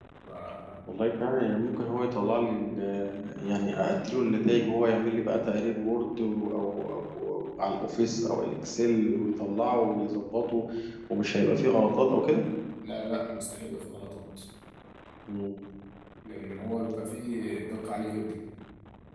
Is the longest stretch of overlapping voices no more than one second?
Yes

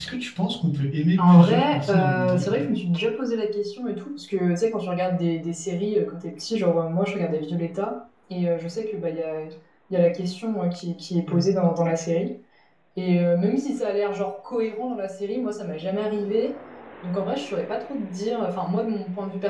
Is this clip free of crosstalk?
No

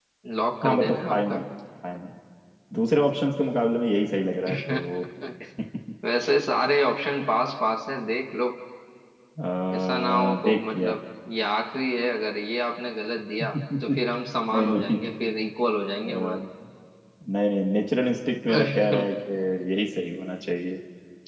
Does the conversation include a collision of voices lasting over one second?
Yes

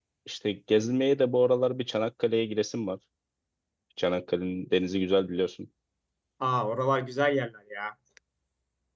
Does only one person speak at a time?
Yes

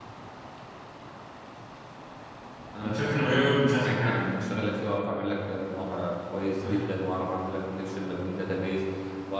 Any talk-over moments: Yes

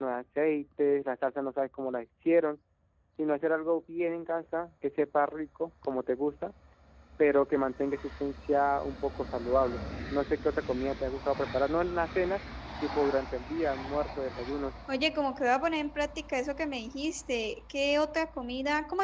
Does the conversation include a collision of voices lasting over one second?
No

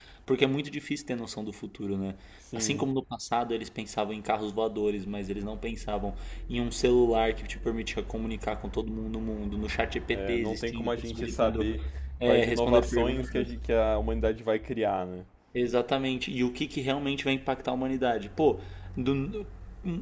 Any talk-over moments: Yes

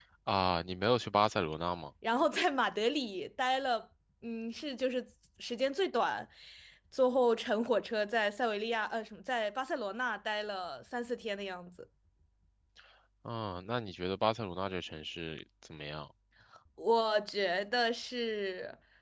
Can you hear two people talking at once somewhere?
No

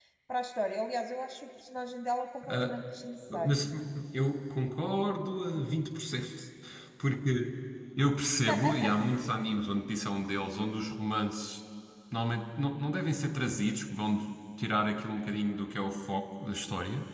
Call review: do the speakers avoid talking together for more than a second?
Yes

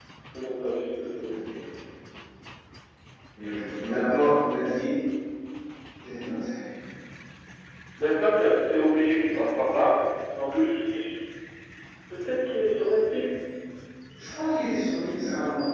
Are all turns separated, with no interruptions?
Yes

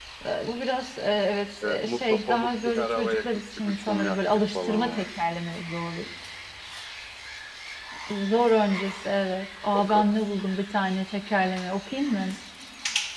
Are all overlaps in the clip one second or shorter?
No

